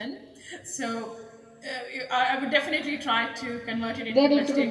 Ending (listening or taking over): taking over